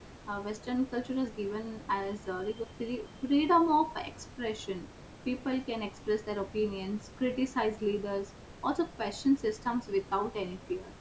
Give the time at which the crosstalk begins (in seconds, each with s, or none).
none